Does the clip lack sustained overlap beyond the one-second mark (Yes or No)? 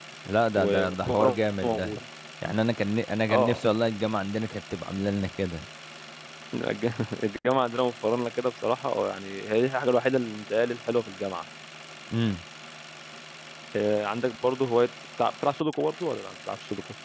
No